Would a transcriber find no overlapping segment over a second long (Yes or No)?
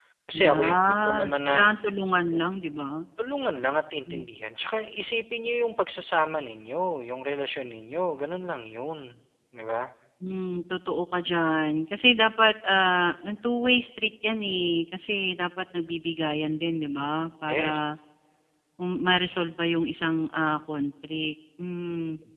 No